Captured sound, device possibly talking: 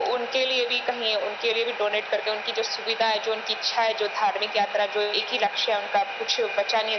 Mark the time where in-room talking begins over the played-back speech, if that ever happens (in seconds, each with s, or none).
none